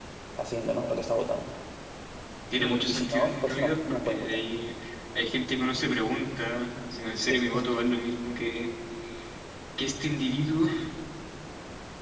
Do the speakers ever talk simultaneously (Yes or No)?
Yes